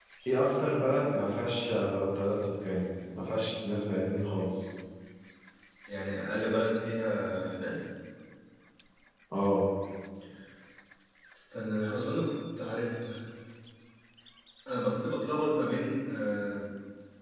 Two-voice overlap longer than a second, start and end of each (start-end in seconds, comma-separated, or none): none